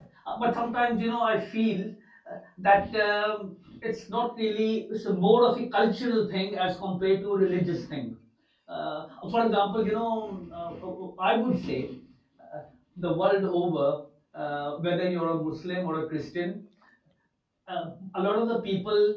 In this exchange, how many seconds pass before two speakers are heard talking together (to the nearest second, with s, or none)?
none